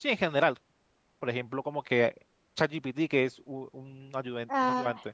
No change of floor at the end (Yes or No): No